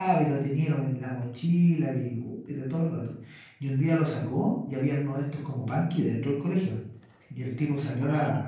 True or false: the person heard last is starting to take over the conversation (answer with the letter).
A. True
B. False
B